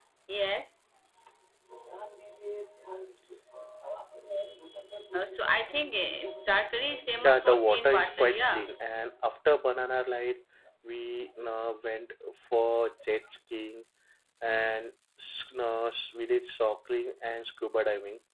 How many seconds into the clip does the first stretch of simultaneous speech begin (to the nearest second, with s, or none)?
7 s